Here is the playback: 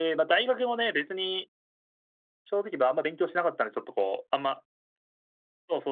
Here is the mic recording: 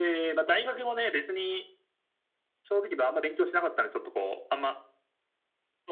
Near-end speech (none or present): none